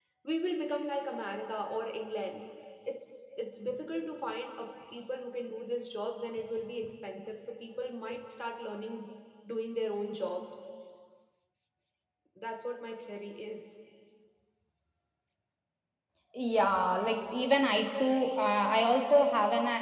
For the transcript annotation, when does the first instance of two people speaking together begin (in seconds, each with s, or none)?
none